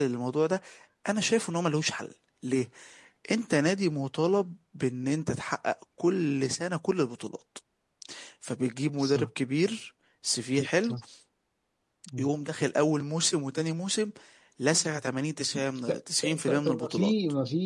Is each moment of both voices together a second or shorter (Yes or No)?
No